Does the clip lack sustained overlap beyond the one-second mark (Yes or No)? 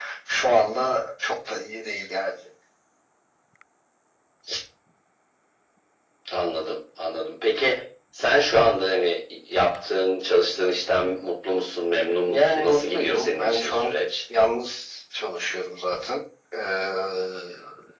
No